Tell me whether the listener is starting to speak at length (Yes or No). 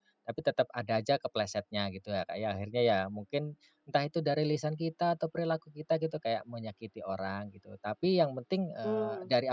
No